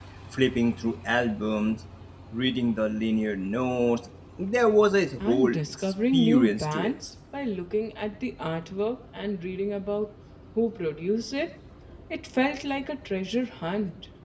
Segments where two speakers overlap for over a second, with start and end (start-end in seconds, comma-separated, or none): 5.2-6.9